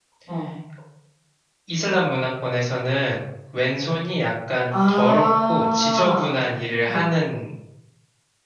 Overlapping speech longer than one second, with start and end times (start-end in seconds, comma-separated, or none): 4.9-6.4